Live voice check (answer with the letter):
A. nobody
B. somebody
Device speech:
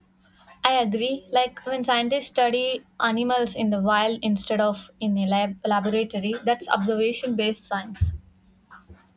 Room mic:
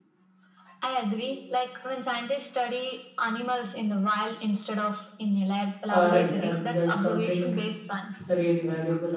B